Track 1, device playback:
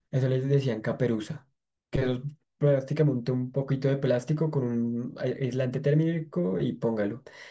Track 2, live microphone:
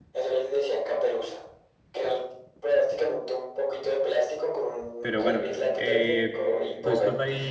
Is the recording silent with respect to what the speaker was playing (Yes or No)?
No